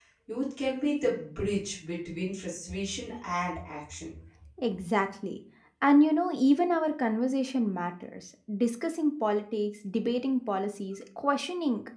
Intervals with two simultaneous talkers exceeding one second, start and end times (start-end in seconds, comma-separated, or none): none